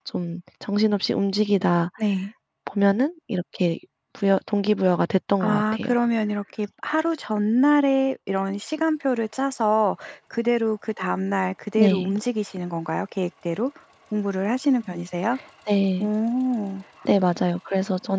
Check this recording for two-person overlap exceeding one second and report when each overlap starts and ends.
none

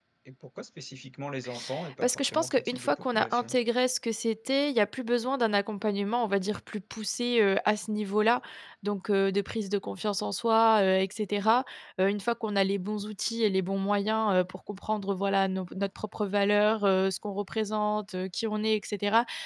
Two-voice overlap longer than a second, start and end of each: 2.0-3.6

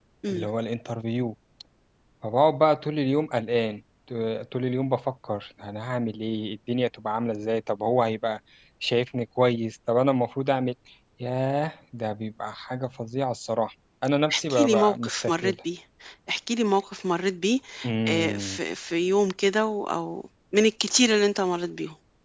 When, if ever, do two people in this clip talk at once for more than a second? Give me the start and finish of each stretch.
14.3-15.6

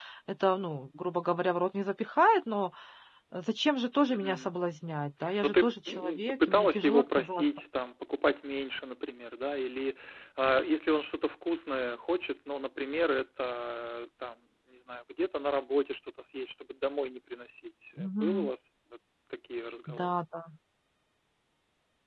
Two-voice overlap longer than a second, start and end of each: 5.4-7.4

